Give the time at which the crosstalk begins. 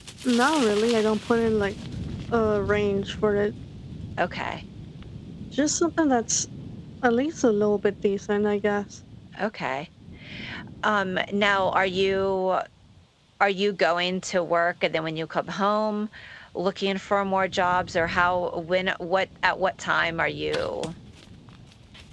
none

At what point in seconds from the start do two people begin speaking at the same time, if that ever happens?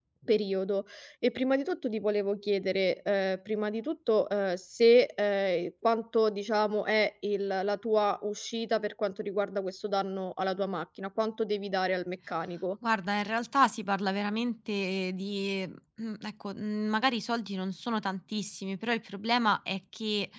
none

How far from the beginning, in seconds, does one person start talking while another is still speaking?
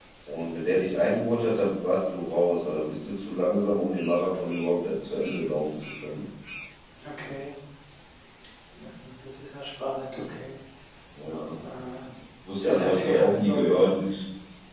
12.6 s

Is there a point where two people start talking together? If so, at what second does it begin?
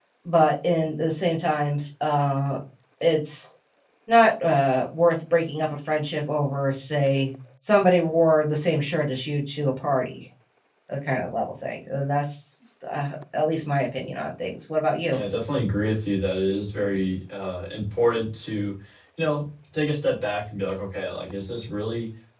none

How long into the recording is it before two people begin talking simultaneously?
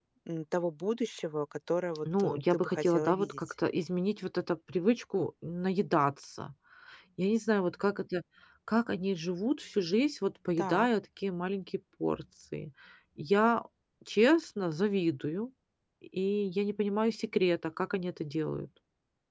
2.0 s

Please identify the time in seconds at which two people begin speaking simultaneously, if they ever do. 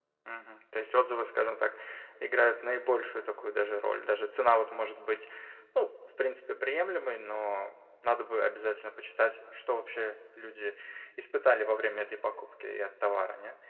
none

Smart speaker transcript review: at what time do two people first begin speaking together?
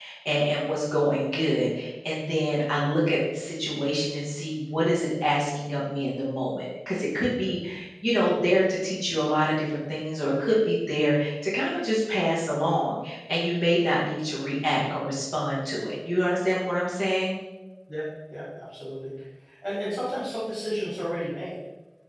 none

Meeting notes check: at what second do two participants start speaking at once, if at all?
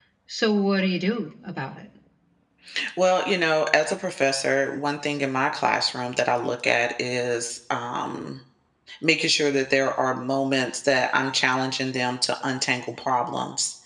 none

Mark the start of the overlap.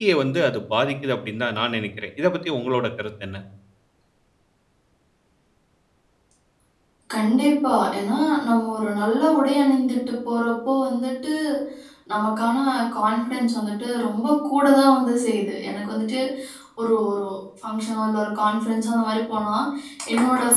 none

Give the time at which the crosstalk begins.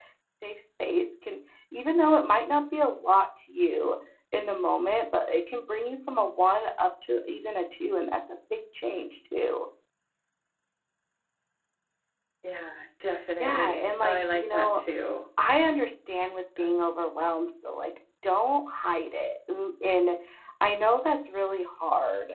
13.4 s

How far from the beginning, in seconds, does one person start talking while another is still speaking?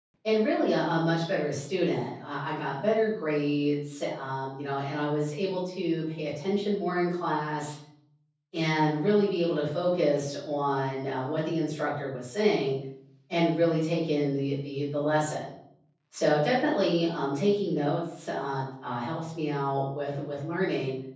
none

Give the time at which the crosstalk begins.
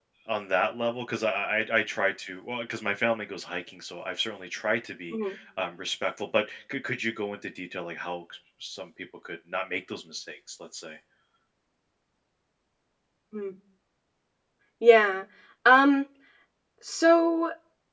none

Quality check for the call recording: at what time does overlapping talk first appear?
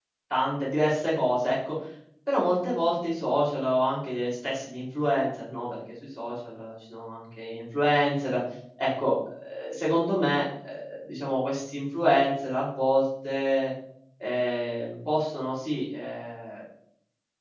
none

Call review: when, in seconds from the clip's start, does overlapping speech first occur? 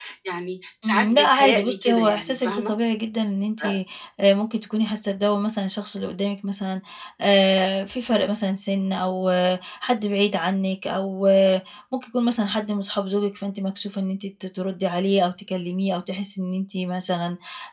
0.8 s

